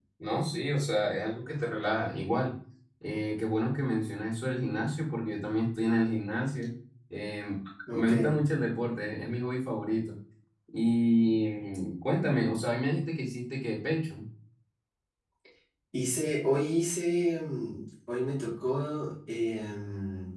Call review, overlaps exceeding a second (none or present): none